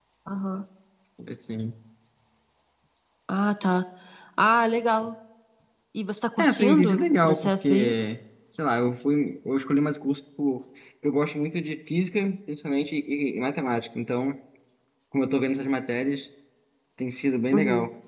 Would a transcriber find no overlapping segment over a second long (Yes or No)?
No